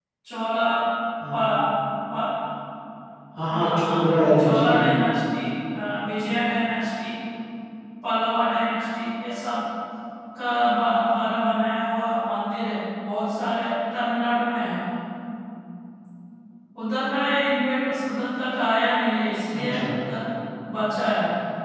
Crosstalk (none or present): present